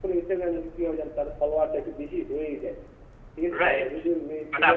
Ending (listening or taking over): taking over